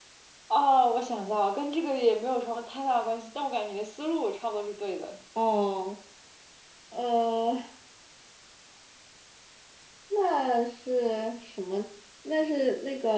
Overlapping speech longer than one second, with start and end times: none

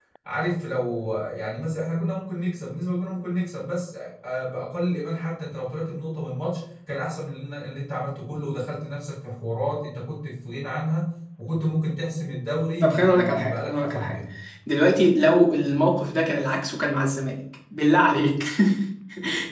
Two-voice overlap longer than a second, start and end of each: 12.8-14.2

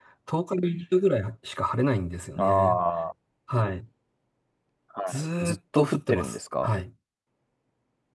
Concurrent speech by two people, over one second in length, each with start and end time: 5.1-6.7

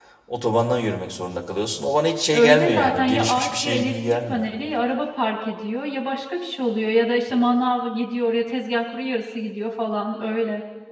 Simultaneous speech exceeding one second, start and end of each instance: 2.3-4.5

